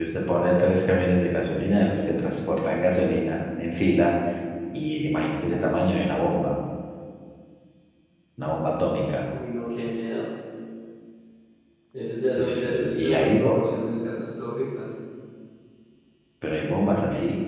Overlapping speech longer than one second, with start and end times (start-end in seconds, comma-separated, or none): 12.3-13.6